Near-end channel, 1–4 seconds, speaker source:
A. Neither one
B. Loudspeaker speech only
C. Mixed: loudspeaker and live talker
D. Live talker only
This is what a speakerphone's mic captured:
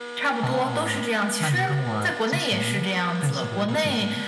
C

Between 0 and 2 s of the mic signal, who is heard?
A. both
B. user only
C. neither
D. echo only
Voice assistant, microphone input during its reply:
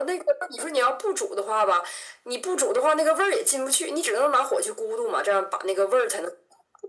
D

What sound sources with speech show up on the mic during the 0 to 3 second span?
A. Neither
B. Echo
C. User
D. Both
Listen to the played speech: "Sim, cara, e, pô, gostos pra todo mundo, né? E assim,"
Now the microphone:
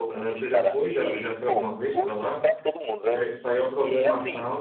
D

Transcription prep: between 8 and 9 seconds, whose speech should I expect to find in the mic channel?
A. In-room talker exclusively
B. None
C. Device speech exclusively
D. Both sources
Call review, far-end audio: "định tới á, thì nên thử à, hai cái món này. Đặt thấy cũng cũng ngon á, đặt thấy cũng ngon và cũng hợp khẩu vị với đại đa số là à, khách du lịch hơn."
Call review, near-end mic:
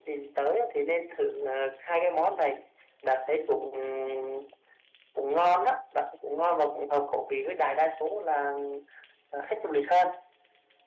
C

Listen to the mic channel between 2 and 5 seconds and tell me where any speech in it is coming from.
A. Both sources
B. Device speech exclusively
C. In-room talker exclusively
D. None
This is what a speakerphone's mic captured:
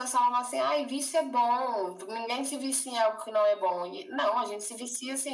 B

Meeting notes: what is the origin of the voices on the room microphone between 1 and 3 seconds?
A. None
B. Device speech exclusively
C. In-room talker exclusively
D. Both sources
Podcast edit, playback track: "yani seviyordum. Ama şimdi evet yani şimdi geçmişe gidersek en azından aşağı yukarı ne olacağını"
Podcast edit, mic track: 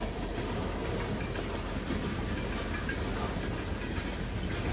A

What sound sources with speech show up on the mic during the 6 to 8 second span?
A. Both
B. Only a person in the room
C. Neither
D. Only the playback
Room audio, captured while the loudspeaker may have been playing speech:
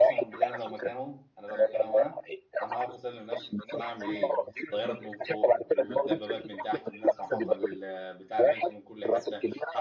A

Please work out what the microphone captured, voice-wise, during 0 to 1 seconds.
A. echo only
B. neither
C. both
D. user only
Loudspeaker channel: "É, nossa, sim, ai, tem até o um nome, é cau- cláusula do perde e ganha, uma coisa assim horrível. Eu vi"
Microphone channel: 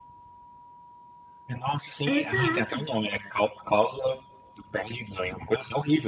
B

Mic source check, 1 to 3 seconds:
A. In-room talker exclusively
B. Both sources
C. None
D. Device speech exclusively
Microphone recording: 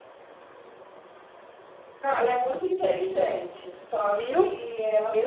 D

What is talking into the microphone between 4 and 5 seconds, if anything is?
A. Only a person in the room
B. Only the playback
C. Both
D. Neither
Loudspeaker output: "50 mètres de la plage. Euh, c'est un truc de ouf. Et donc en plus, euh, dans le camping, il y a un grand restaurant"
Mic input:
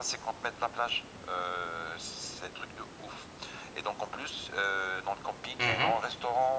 B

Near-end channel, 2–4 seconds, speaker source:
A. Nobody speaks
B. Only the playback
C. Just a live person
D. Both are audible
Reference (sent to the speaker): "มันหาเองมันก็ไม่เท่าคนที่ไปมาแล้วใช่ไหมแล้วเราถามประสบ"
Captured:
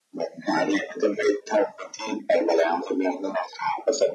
B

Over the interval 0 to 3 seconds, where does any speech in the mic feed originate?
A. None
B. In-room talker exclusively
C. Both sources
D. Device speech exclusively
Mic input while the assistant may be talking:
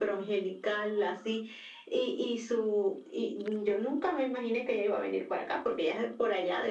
D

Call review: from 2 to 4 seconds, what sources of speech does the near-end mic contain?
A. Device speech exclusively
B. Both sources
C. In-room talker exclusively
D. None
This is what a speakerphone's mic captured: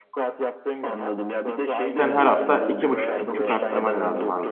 B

